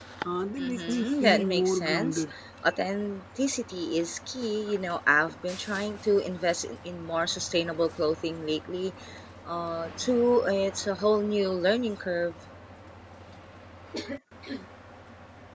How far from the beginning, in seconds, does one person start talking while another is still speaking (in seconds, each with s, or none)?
0.6 s